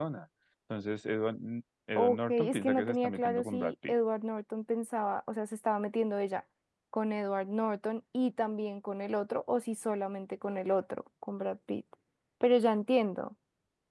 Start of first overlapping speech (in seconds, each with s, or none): 2.0 s